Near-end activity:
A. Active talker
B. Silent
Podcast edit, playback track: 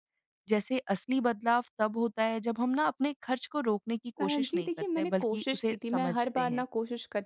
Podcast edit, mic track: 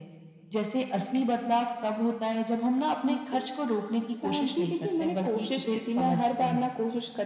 A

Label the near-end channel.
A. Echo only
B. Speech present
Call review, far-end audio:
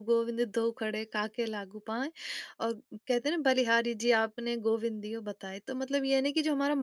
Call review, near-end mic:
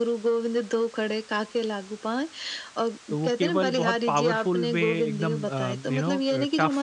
B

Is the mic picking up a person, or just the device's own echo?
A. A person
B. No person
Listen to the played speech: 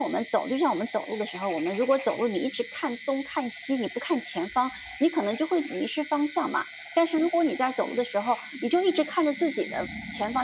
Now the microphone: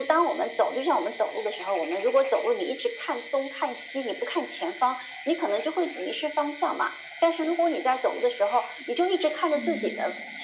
A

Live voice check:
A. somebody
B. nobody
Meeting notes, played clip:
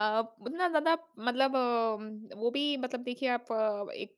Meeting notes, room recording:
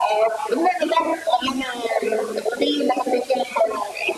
B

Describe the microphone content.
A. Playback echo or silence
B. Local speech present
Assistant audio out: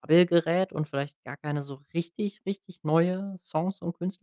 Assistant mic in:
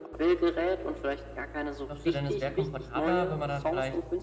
B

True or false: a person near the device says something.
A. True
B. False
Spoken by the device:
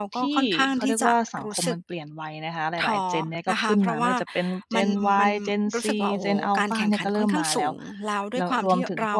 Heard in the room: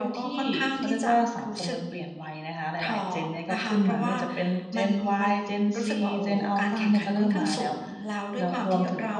B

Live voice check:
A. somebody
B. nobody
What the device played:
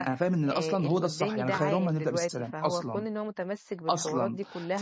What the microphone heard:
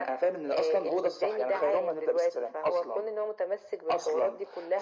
B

